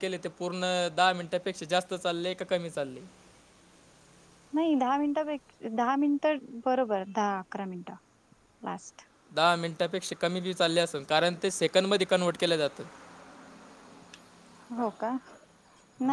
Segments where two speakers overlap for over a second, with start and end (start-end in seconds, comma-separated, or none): none